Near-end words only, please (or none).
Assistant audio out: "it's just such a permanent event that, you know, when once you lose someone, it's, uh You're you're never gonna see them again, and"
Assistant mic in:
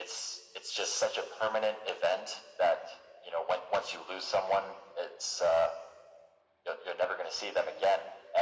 none